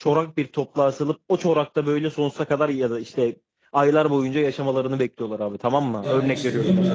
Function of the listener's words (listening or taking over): taking over